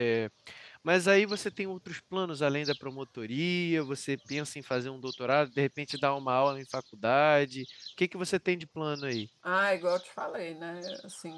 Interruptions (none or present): none